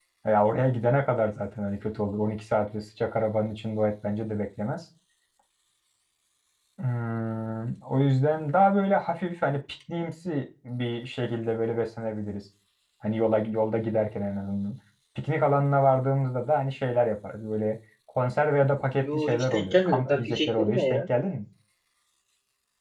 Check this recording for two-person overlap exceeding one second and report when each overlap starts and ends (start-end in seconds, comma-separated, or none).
19.0-21.0